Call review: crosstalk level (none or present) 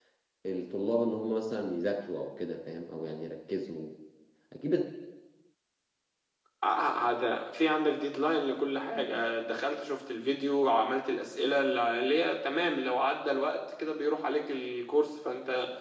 none